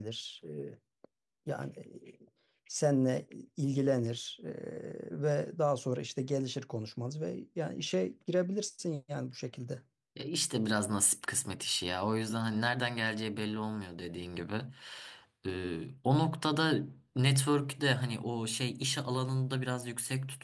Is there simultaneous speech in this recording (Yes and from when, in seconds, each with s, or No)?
No